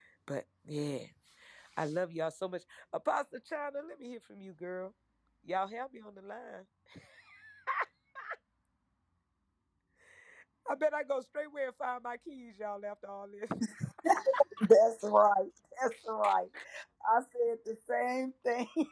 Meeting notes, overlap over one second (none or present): none